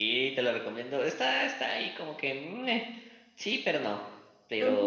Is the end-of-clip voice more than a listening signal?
No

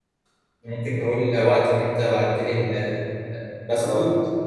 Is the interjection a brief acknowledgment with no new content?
Yes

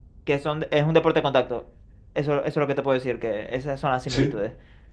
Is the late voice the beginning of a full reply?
No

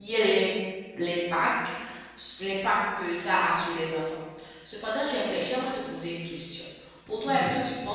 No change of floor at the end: Yes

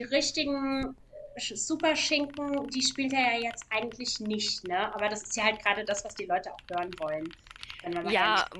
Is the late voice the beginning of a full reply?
Yes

